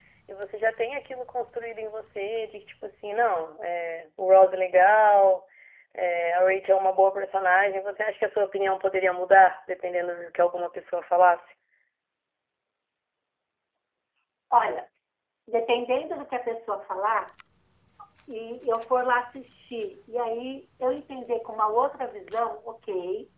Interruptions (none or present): none